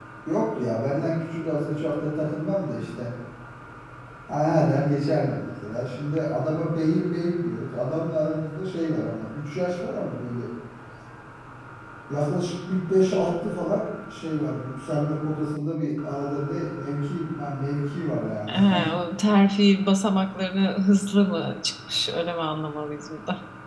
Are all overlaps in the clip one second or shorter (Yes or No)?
Yes